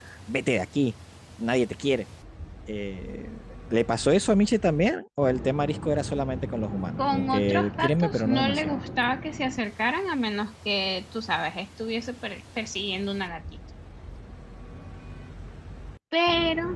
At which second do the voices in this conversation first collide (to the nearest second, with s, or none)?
7 s